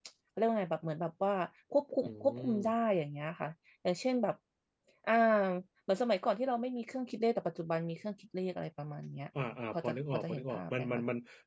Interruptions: present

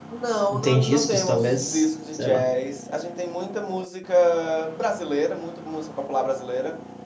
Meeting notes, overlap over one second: present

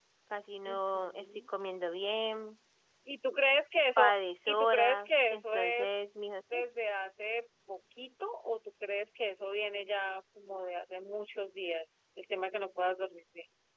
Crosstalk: present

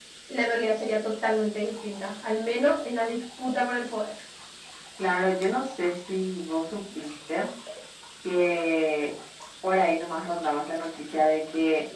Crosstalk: none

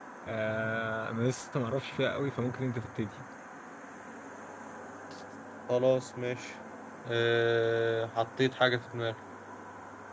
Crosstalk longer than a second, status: none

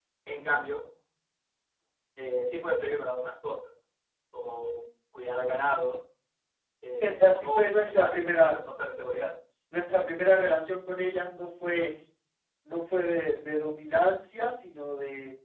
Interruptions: present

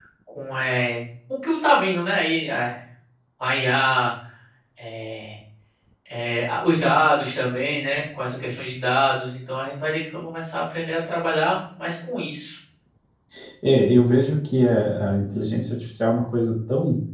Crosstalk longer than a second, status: none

